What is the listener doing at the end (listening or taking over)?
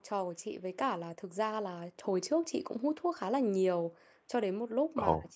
listening